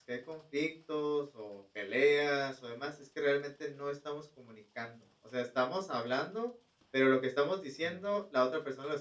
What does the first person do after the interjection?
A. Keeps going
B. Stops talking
A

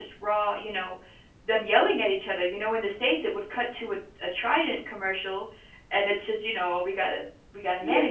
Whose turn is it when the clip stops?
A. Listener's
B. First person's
A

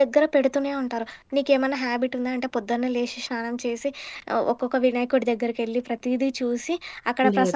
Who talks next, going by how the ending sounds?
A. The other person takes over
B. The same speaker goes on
B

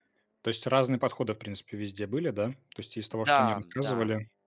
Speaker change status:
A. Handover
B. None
B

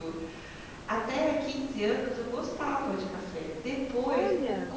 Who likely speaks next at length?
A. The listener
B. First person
B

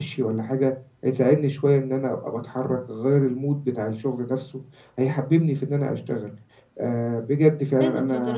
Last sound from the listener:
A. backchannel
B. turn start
B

